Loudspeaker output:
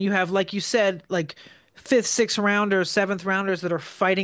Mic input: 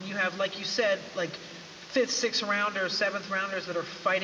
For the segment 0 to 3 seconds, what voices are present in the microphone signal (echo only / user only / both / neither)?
echo only